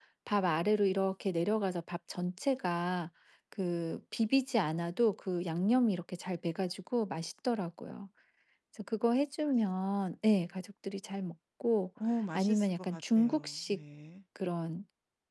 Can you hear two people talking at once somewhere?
Yes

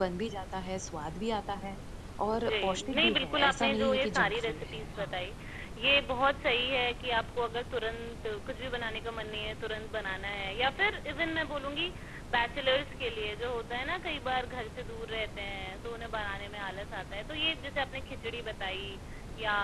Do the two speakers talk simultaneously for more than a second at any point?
Yes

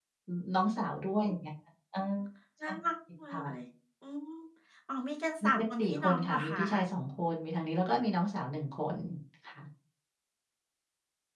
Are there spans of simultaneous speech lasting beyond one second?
Yes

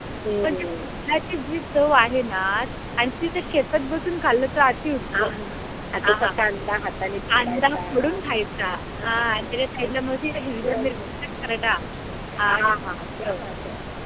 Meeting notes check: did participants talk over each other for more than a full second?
Yes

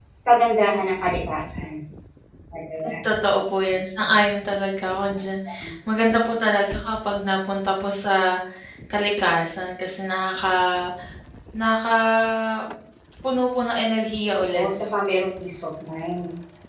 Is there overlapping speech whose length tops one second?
No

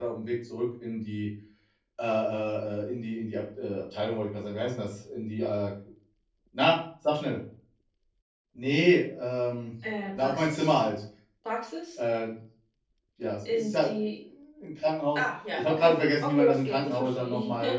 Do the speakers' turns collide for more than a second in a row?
Yes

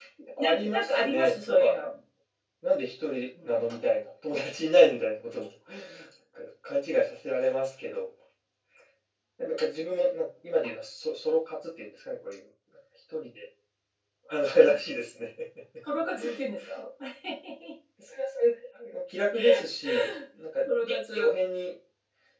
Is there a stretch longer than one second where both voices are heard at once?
Yes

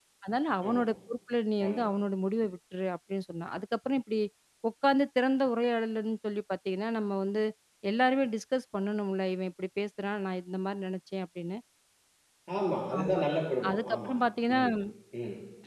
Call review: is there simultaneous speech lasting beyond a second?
No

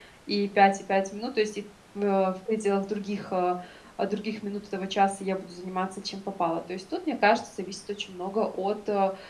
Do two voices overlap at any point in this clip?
No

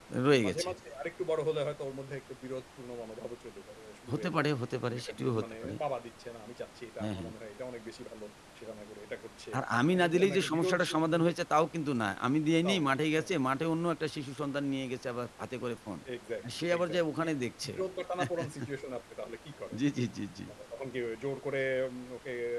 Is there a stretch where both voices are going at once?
Yes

